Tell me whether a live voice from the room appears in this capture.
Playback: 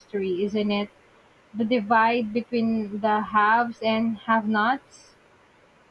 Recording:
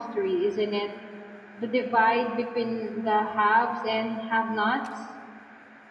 No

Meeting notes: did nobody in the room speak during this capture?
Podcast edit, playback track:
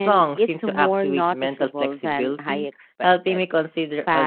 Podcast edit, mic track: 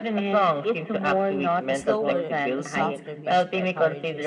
No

